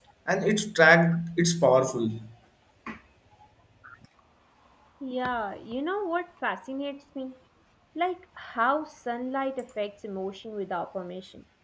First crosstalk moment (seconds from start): none

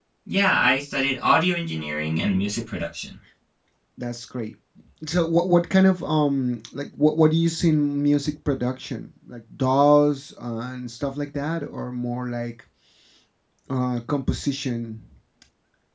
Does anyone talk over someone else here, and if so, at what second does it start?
none

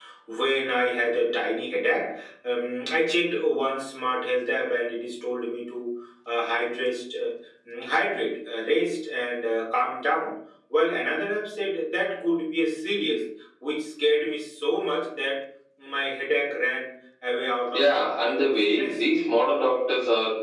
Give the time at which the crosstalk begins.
18 s

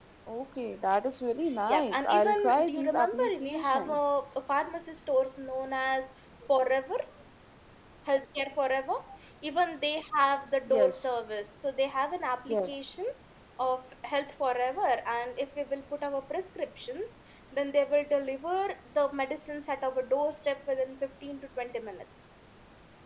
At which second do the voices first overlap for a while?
2 s

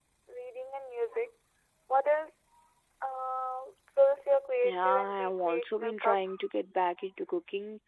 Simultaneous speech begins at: 5 s

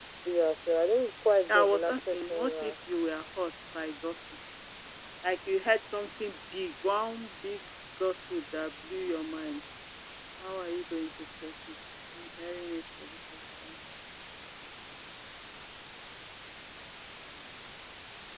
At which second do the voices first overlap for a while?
1 s

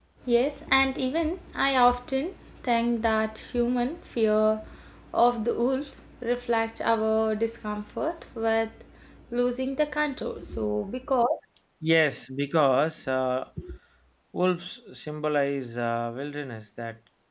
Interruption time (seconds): none

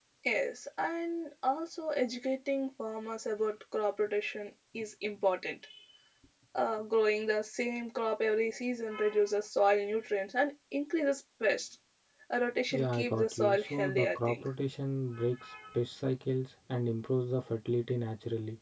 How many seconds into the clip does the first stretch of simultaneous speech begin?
13 s

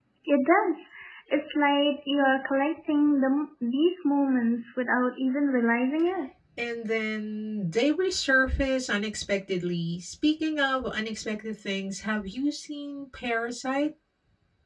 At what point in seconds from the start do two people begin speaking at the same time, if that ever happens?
none

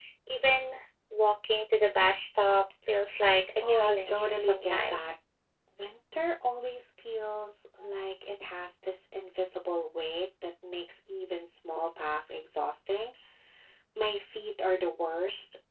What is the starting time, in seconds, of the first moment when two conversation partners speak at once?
4 s

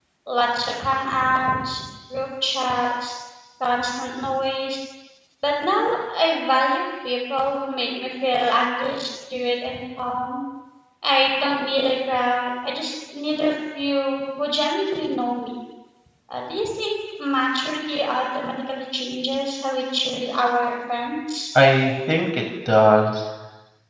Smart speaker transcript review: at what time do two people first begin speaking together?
none

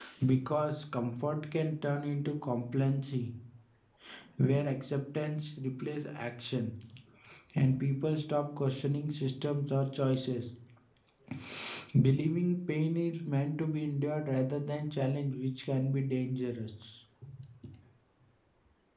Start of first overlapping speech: none

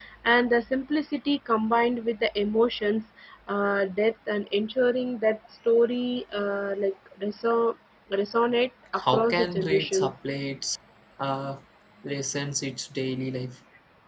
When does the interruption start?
9 s

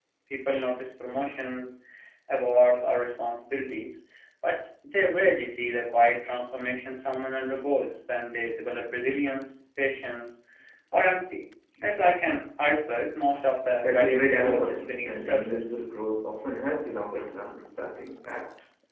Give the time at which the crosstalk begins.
14 s

